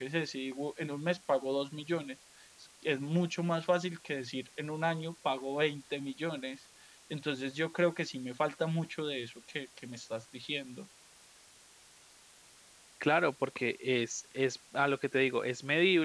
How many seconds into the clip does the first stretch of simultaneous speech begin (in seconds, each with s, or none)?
none